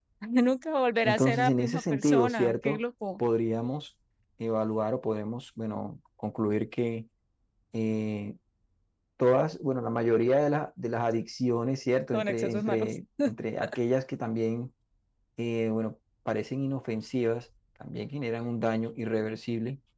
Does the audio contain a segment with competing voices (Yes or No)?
Yes